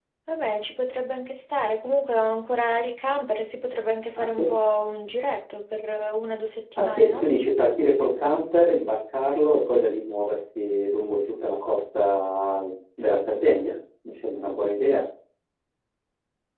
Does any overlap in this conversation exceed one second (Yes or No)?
No